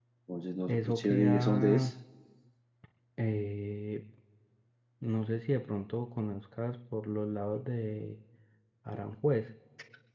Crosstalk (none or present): present